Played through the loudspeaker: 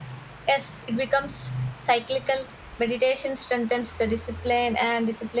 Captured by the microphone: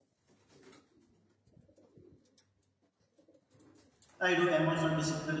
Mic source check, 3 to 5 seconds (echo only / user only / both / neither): user only